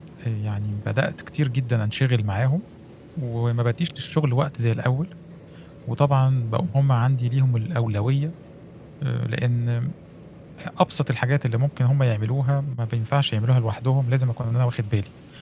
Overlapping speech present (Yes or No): No